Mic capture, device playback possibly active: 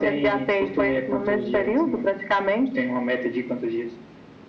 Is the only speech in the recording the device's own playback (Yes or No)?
Yes